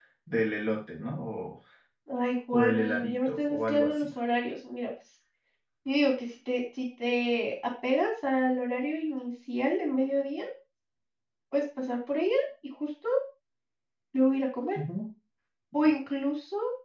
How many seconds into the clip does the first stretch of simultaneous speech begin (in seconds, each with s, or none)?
2.5 s